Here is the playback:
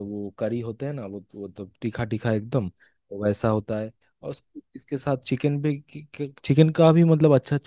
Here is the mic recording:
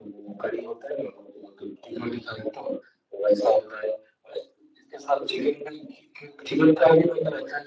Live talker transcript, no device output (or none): none